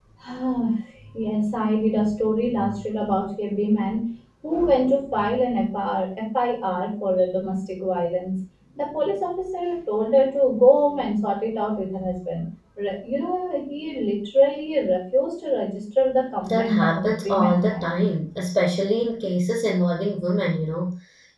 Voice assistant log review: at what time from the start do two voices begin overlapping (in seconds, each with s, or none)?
16.4 s